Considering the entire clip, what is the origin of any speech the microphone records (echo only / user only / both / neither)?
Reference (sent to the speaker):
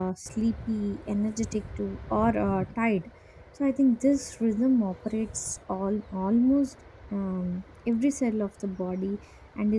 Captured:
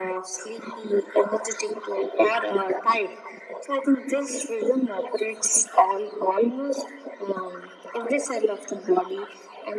echo only